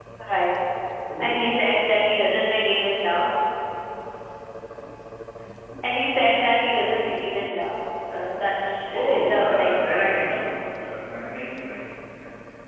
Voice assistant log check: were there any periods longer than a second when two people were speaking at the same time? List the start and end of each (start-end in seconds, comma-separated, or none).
8.9-10.9